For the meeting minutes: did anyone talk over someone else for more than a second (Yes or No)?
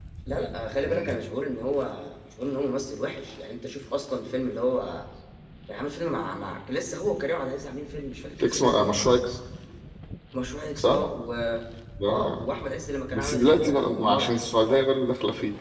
Yes